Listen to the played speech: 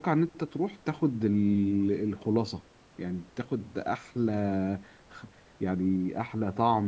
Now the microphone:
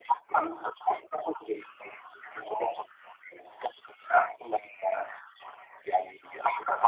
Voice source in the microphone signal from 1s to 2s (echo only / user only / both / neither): echo only